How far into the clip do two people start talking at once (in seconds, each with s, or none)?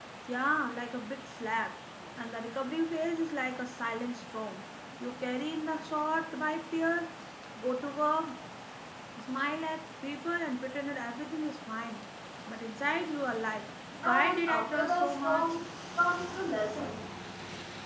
14.0 s